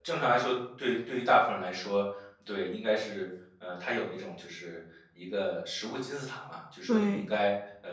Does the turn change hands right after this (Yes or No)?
No